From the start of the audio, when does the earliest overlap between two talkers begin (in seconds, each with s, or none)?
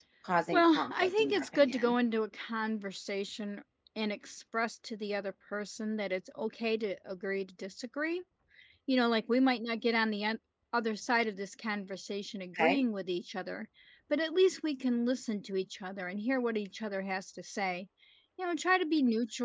0.5 s